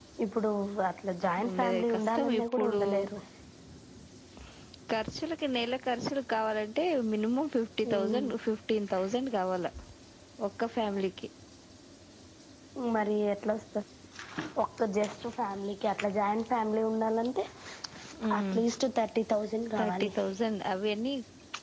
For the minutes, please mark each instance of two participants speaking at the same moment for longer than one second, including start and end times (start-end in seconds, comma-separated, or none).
1.5-2.8